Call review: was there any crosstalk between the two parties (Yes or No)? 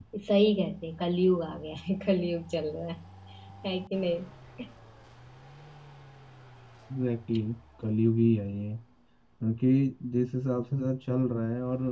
No